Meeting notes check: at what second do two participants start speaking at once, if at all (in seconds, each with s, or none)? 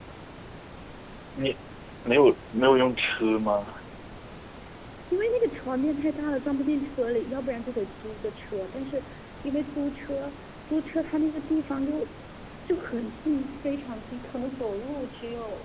none